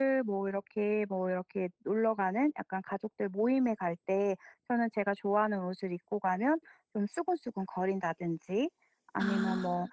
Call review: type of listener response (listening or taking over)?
listening